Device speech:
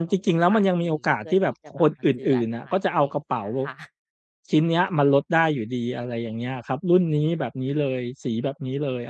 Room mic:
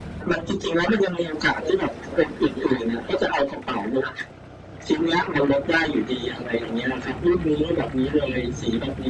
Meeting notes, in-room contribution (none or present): none